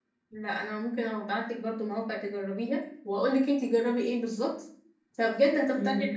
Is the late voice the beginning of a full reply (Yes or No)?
No